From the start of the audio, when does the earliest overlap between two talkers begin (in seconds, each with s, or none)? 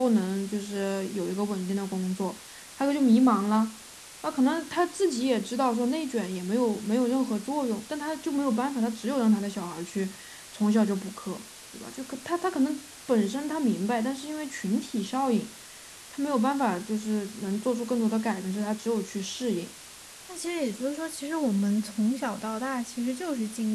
none